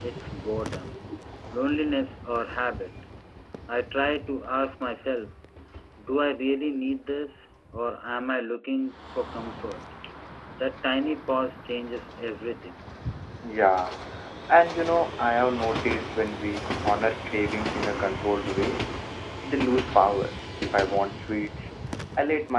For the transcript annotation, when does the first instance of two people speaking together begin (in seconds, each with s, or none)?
none